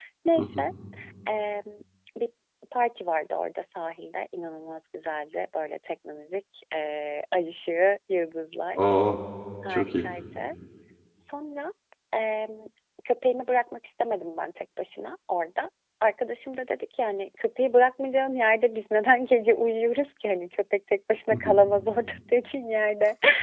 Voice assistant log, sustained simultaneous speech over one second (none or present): none